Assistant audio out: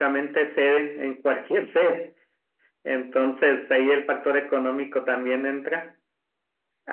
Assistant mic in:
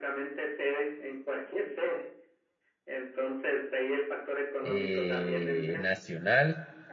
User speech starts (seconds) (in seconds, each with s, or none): 4.6 s